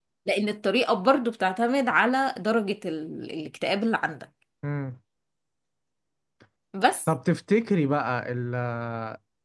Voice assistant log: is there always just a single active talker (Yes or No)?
Yes